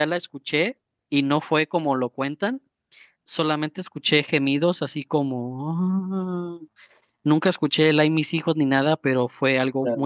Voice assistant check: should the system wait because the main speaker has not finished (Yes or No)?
No